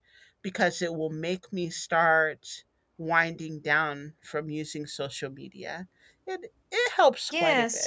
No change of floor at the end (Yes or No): No